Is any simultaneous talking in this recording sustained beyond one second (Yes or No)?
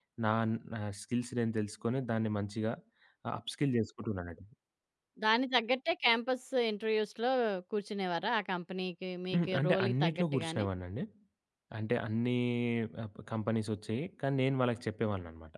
Yes